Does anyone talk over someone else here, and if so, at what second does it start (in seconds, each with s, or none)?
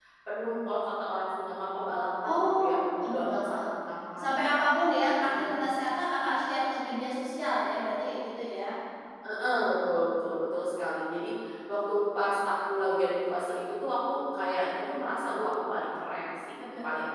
2.2 s